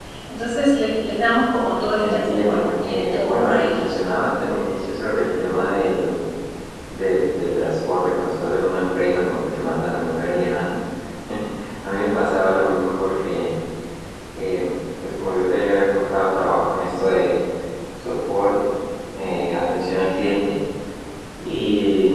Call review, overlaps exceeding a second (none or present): present